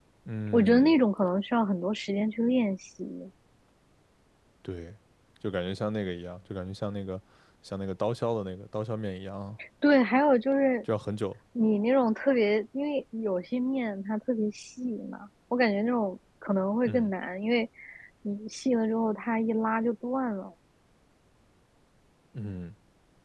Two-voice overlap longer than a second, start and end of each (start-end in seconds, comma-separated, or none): none